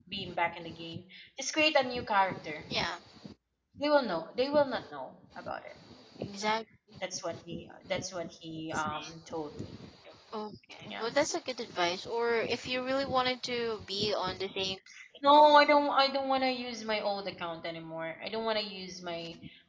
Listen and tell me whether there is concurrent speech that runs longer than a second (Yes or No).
No